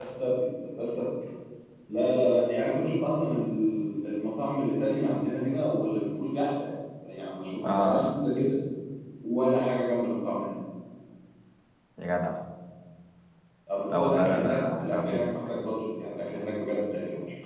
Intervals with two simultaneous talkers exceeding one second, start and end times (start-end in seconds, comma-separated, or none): 13.9-15.2